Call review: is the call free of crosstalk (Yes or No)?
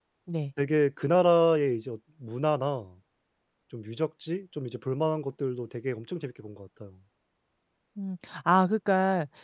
Yes